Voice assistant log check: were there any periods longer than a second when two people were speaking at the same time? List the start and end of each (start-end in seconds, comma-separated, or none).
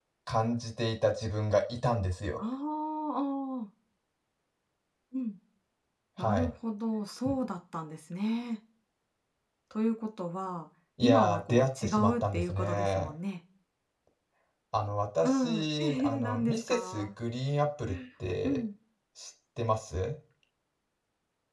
11.0-13.1, 15.2-17.1